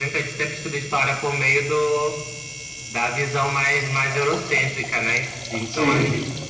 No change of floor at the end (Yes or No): Yes